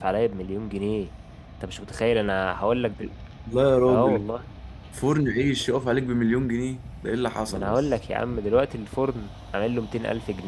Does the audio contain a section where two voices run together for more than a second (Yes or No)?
No